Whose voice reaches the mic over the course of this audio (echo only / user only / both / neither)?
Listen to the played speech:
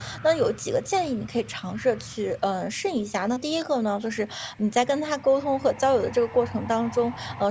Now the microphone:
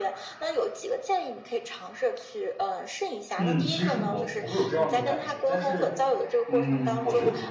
both